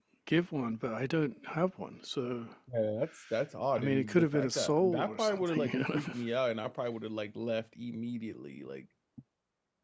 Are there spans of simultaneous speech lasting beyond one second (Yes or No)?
Yes